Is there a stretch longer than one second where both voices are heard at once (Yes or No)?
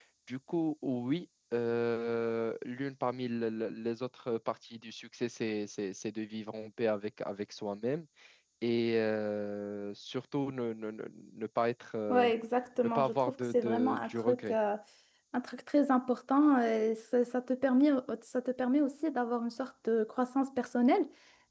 Yes